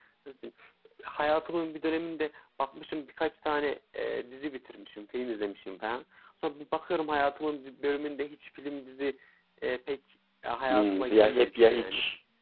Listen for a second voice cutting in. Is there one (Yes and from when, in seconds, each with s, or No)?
Yes, from 10.7 s